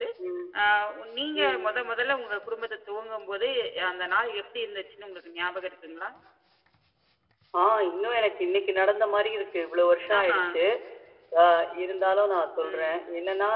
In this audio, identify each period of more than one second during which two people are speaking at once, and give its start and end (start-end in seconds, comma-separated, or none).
none